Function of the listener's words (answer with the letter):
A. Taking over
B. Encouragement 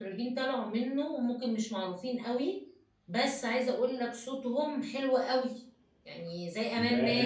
A